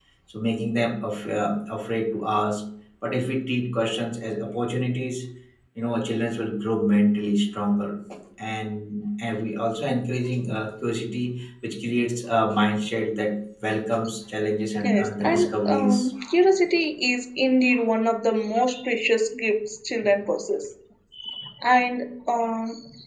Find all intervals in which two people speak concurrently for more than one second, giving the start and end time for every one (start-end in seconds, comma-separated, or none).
14.8-16.1